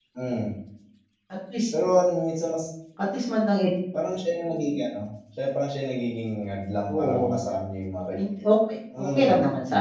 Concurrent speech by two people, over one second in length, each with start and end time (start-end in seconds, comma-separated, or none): none